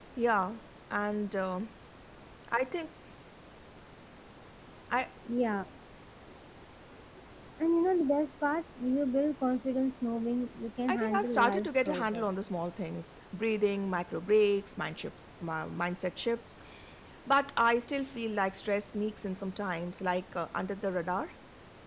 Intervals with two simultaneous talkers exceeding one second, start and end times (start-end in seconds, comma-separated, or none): 10.9-12.3